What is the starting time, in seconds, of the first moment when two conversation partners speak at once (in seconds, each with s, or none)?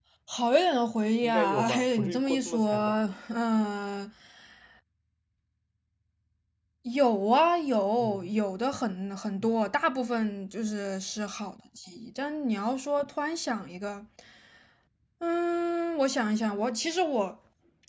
1.2 s